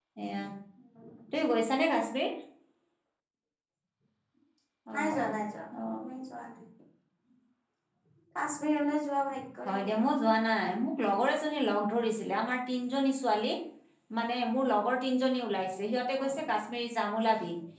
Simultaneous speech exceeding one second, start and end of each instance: none

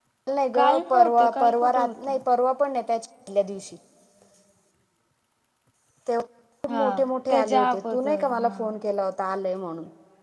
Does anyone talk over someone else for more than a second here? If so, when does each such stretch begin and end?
0.5-2.2, 7.3-8.5

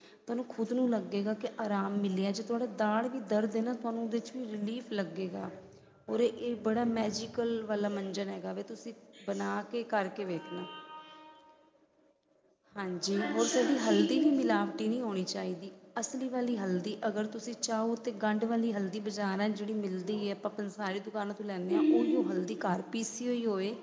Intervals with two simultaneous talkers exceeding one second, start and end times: 13.2-14.5

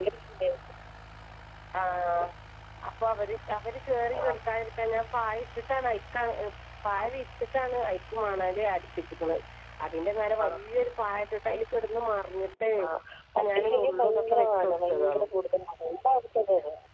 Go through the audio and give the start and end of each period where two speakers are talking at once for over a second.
13.4-15.2

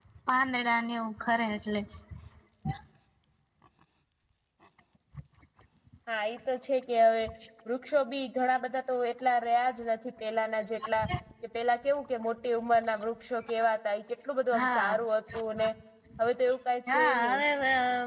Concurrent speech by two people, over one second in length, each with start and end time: none

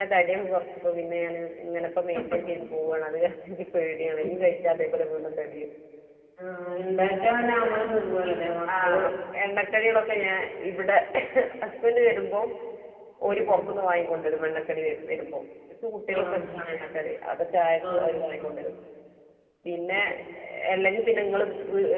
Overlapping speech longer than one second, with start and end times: none

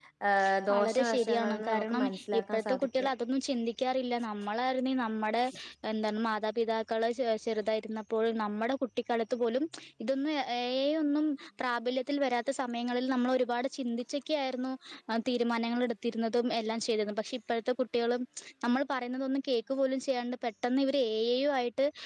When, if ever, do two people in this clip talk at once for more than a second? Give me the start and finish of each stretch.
0.7-3.1

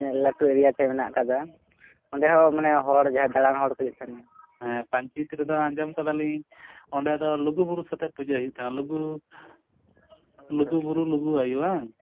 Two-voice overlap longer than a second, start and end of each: none

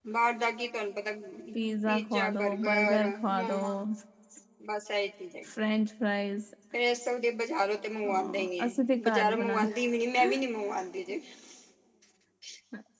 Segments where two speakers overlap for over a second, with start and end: 1.9-3.6, 8.1-9.8

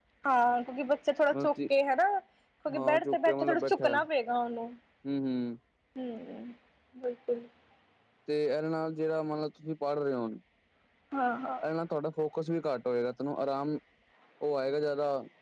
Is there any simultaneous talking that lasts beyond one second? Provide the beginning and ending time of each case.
2.8-4.0

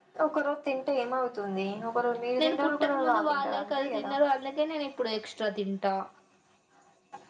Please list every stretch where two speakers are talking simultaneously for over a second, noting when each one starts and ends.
2.4-4.1

